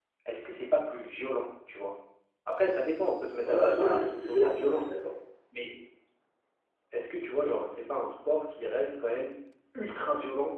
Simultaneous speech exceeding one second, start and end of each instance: 3.5-4.9

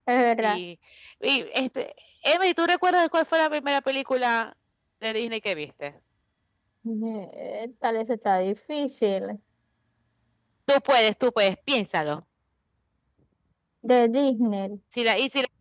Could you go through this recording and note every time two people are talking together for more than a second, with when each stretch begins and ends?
none

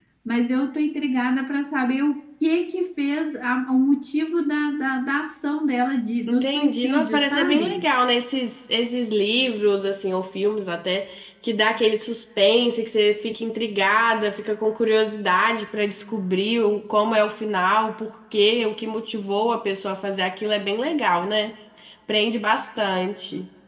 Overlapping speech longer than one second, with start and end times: 6.3-7.8

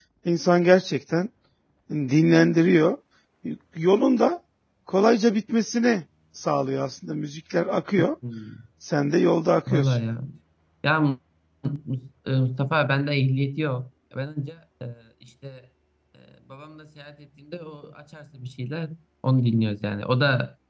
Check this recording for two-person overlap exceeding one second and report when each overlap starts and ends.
none

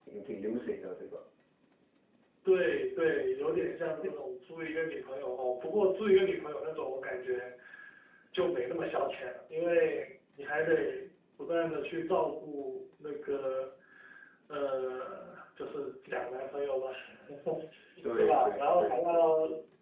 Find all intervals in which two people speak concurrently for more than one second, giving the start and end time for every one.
18.1-19.3

